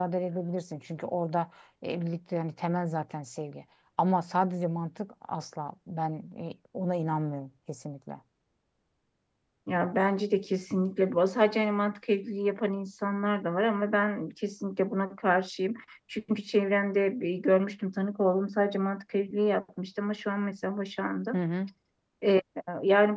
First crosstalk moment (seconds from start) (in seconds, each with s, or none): none